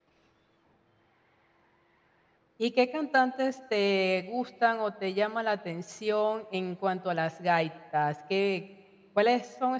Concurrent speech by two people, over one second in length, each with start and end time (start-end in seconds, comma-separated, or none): none